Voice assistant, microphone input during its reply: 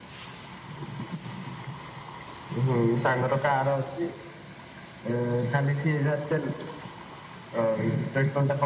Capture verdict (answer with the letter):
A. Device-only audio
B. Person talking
A